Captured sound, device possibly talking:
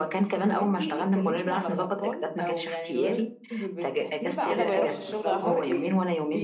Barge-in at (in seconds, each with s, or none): 4.4 s